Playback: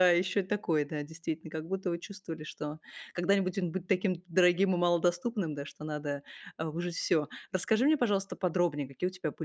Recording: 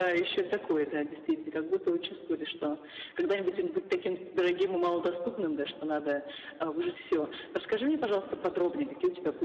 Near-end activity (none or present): none